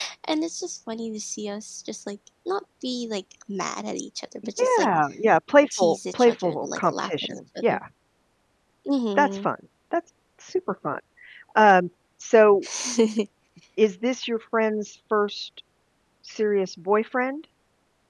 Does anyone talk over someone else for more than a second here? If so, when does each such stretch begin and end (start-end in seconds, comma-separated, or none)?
5.8-7.8